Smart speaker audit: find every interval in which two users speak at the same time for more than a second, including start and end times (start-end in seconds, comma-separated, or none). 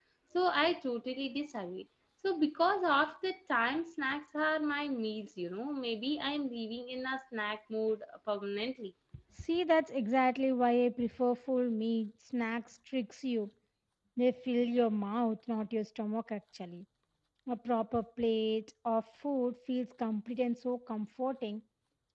none